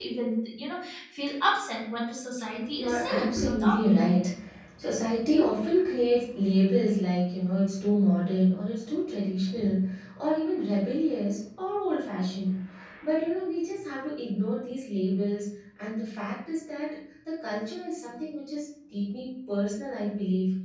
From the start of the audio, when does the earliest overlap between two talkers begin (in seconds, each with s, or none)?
2.7 s